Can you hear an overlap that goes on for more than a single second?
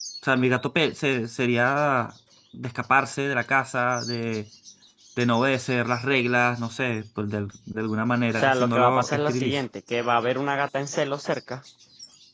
Yes, from 8.3 s

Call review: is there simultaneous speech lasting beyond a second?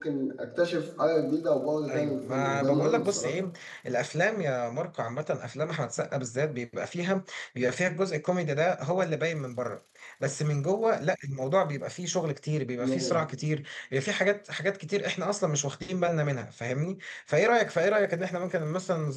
Yes, from 1.9 s

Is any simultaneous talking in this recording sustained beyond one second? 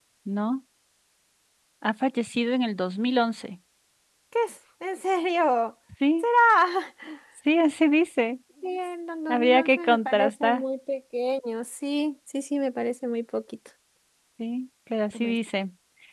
Yes, from 9.3 s

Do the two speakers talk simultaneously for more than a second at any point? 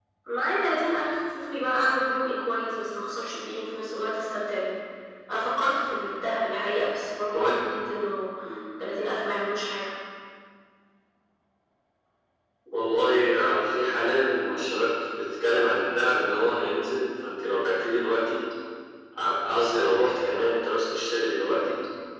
No

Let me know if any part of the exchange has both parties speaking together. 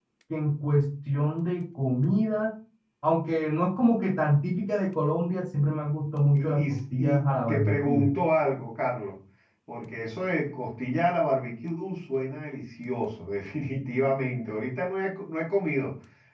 Yes, from 6.3 s

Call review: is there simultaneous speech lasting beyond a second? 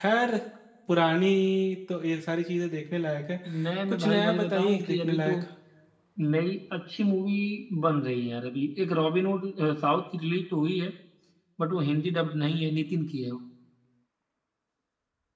Yes, from 3.9 s

